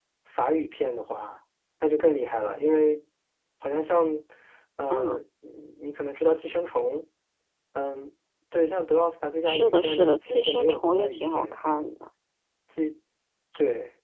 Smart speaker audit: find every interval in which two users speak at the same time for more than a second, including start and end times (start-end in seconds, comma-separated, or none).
9.5-11.6